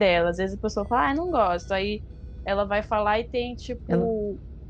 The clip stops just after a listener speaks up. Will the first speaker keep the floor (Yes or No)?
Yes